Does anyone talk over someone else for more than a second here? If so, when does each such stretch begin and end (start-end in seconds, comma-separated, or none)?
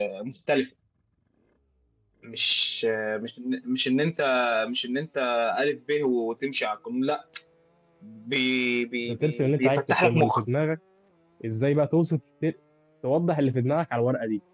9.1-10.4